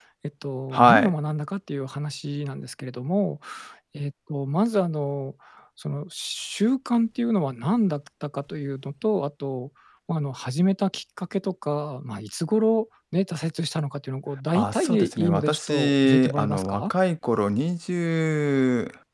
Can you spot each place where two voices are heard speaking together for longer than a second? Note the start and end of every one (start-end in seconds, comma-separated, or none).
14.5-16.8